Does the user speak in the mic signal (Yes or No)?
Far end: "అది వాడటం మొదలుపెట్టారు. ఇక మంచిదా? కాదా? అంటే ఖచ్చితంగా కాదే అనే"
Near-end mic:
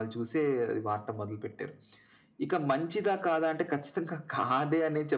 No